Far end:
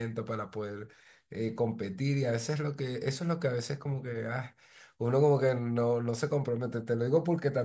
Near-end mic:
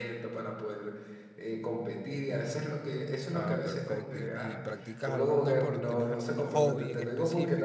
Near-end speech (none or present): present